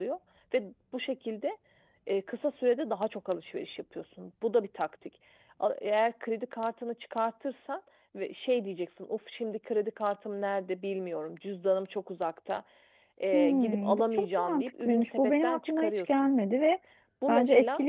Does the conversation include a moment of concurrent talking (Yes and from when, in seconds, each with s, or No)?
Yes, from 13.3 s